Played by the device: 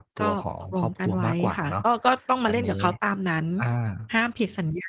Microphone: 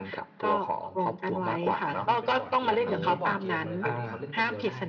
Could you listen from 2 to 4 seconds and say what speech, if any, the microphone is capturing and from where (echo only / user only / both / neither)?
both